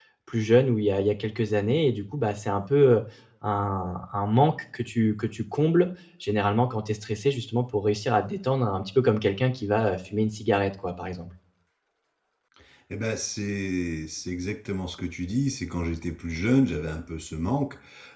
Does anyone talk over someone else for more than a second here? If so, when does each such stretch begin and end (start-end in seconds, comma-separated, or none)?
none